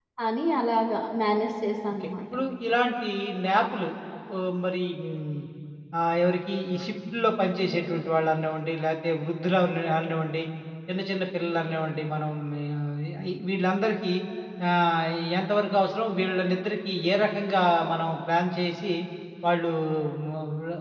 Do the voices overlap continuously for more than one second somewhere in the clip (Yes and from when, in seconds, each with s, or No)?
No